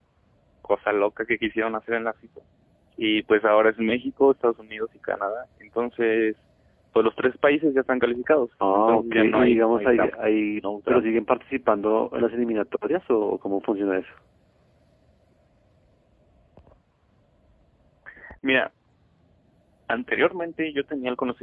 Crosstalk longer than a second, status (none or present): present